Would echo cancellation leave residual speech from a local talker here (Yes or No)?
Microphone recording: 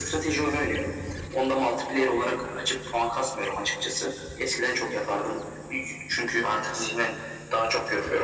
No